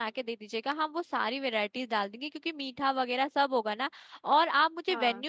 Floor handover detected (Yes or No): No